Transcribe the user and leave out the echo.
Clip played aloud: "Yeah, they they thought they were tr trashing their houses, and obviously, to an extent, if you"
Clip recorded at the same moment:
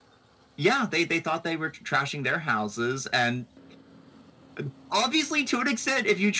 none

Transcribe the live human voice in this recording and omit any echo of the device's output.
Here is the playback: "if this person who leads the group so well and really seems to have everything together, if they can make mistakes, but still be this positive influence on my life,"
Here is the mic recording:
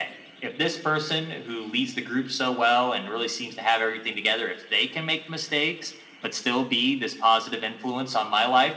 none

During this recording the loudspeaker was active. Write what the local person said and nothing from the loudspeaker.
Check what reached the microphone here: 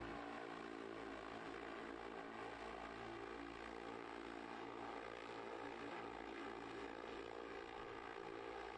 none

